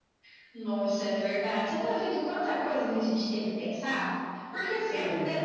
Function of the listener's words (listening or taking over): listening